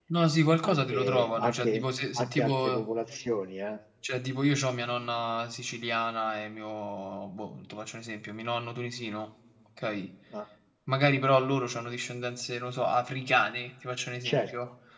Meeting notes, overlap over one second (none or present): present